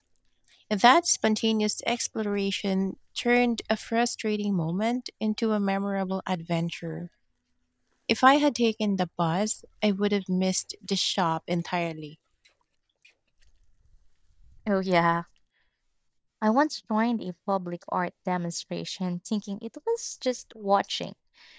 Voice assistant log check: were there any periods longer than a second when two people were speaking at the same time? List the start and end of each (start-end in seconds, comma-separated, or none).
none